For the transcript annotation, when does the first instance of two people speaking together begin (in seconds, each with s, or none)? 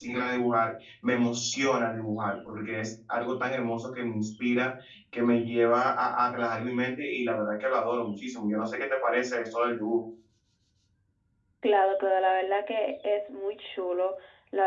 none